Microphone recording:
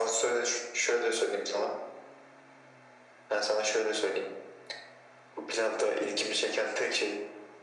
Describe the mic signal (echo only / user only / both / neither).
echo only